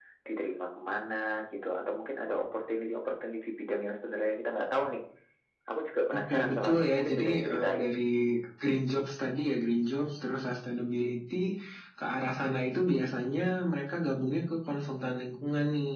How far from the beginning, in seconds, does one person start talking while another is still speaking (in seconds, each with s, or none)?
6.2 s